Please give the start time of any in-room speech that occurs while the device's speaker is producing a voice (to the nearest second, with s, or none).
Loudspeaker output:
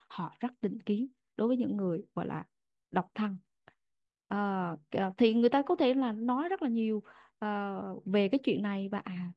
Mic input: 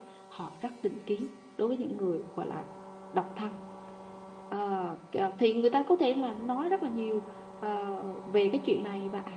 none